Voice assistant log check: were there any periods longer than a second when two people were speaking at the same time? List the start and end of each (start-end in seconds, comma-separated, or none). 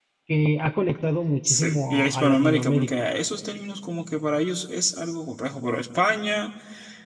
1.4-2.9